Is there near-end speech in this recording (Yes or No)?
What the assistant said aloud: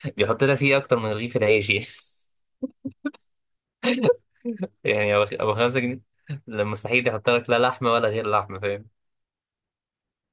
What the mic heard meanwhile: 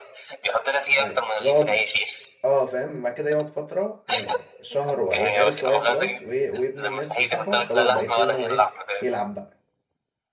Yes